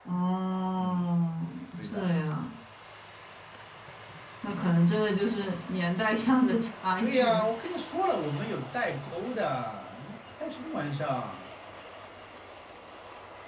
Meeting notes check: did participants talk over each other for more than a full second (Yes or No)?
No